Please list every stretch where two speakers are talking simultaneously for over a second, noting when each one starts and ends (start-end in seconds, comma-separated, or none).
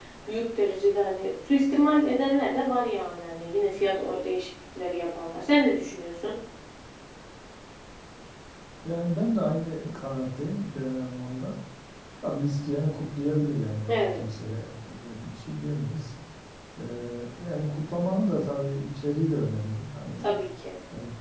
none